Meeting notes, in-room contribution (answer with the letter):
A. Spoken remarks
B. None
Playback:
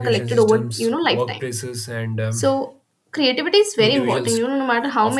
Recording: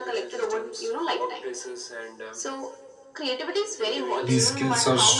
A